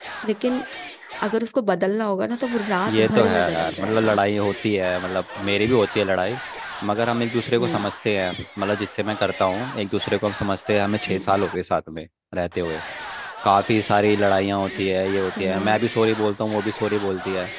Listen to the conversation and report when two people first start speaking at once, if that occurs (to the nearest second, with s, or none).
3 s